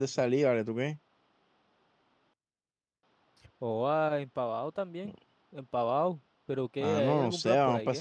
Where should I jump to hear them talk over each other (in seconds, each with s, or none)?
6.8 s